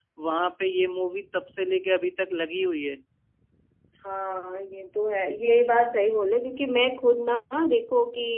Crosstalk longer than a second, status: none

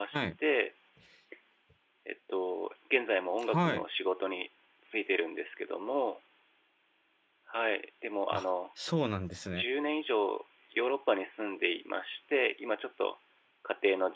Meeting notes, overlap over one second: none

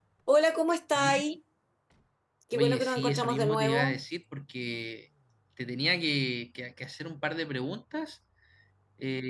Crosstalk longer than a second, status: present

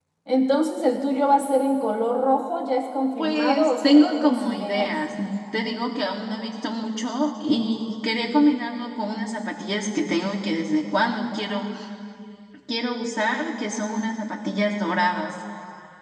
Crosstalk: present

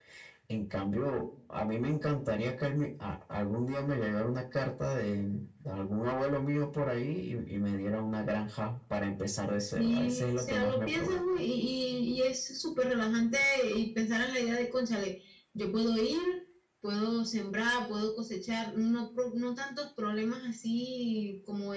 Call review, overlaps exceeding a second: present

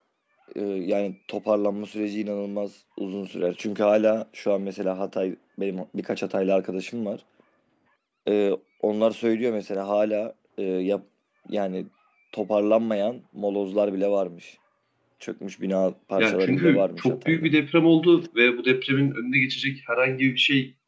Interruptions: present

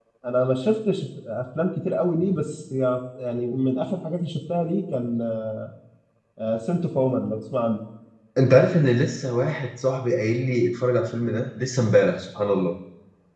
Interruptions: none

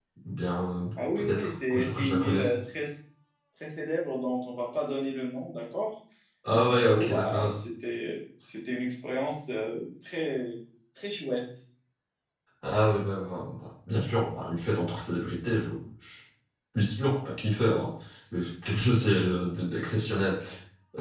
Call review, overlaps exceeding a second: present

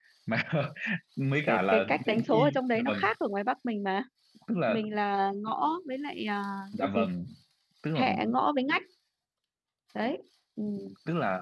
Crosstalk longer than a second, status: present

